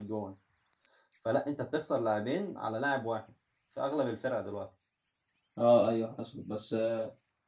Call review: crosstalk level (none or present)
none